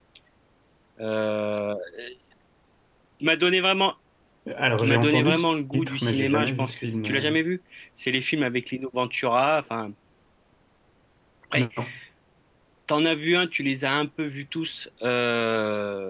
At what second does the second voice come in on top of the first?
4.8 s

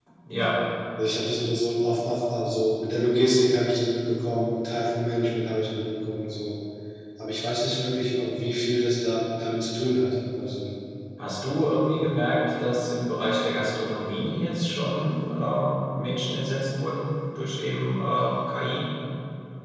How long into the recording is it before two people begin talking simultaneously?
none

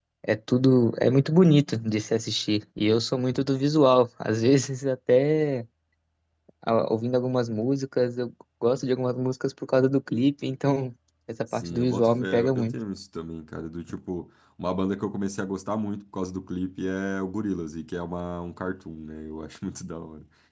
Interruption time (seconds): 11.5 s

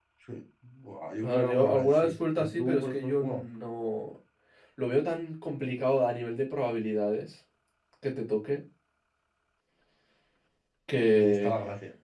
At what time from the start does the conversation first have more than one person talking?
1.2 s

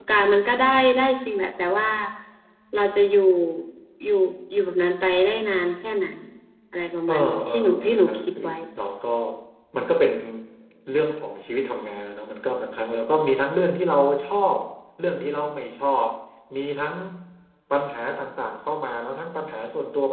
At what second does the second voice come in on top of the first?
7.1 s

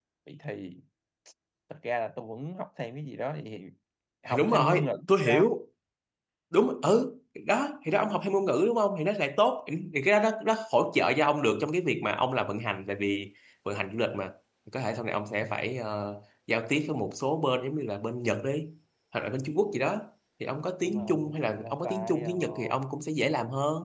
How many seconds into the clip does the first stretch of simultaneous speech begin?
4.3 s

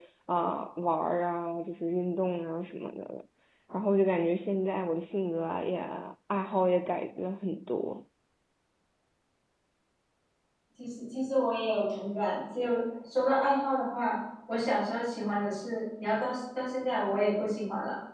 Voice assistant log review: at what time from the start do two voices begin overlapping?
none

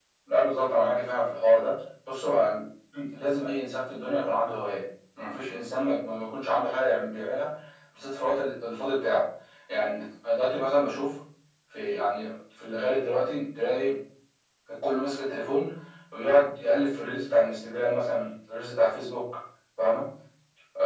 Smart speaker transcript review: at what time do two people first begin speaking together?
none

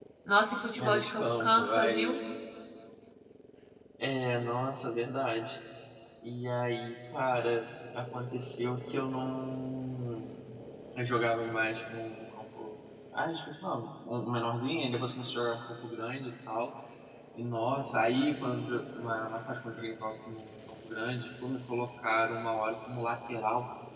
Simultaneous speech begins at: 0.8 s

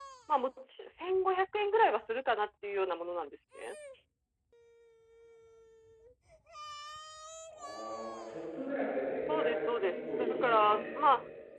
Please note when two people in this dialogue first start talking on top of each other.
9.3 s

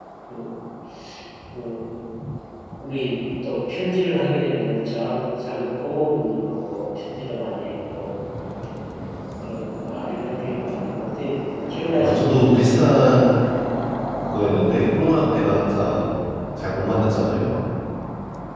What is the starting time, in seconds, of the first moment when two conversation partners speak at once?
12.0 s

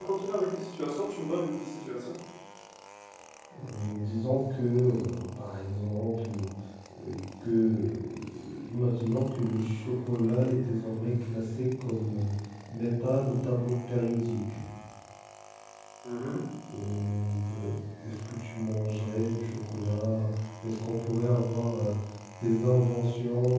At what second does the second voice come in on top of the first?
none

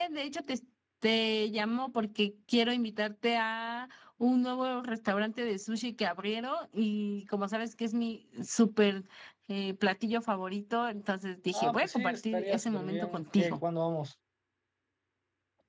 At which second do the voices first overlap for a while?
11.5 s

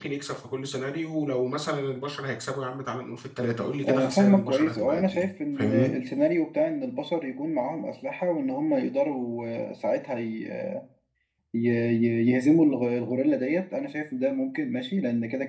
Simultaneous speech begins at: 3.8 s

